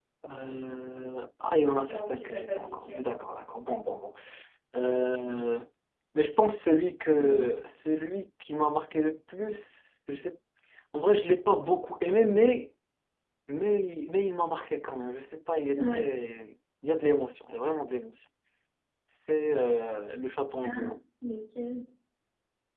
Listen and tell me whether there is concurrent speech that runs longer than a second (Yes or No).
Yes